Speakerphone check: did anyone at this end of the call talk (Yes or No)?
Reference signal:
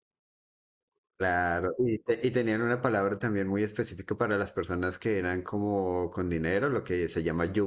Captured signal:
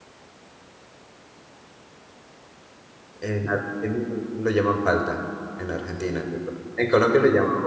Yes